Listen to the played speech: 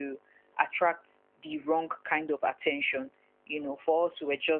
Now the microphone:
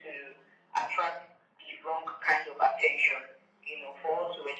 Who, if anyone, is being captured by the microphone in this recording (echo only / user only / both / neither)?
echo only